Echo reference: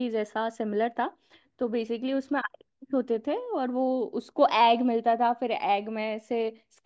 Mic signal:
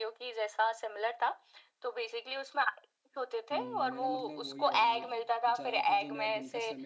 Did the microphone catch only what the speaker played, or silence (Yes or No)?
No